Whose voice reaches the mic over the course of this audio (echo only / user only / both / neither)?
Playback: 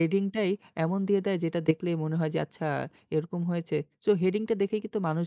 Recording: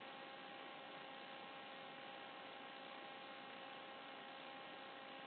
neither